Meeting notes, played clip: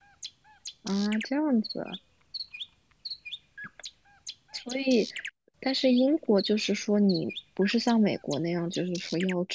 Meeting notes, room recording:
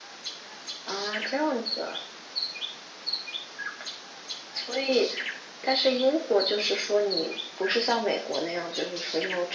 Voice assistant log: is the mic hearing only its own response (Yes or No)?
Yes